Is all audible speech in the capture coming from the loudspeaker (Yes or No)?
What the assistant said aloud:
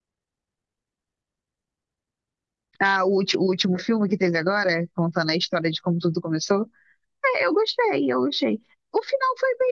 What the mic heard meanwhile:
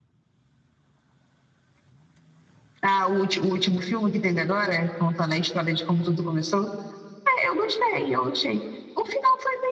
Yes